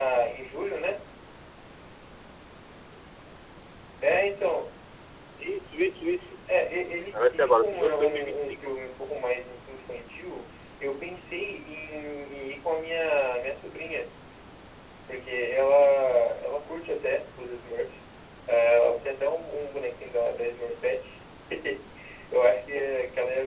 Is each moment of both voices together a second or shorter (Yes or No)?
No